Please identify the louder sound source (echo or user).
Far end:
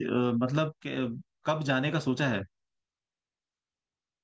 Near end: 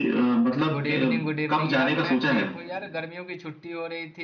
echo